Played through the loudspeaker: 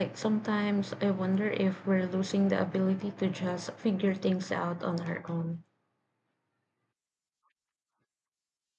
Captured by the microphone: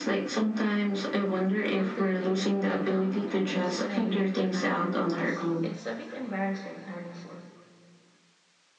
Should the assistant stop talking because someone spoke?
Yes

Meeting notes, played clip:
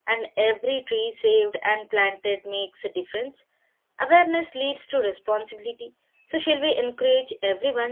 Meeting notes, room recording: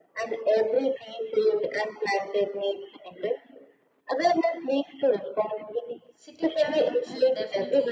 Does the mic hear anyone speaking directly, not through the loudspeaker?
Yes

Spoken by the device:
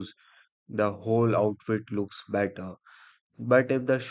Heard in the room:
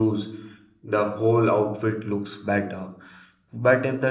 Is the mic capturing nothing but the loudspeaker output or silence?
Yes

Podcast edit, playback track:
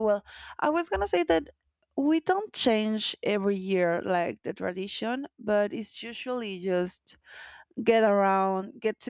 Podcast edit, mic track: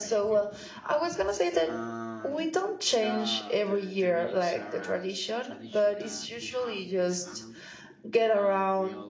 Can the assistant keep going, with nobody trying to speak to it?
No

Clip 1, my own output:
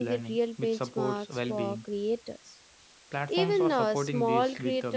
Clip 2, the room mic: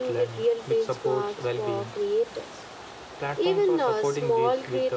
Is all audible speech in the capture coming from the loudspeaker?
Yes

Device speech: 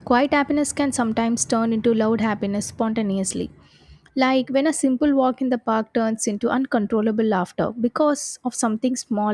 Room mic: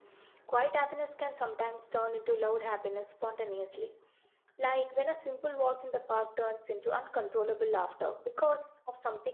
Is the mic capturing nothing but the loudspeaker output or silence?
Yes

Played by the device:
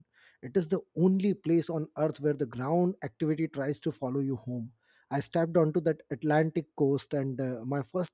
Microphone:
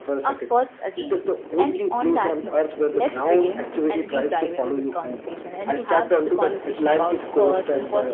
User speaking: Yes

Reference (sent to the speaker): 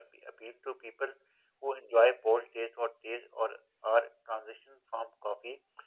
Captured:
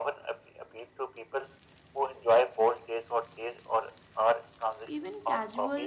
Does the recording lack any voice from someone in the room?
No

